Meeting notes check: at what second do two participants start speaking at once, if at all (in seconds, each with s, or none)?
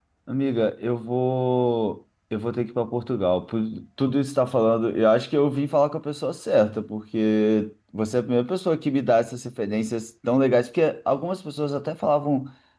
none